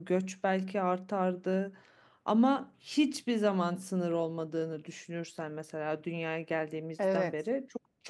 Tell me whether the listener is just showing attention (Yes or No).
Yes